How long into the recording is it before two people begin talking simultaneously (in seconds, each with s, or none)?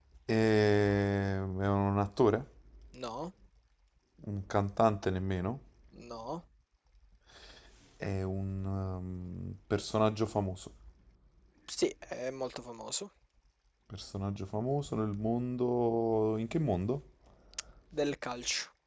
none